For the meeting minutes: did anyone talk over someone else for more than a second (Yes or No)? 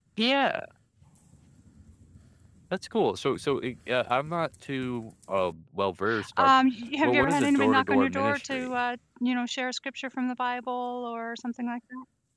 Yes